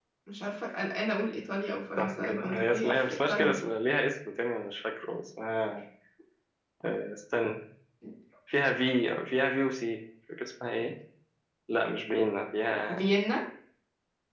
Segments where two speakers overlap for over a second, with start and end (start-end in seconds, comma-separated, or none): 2.0-3.6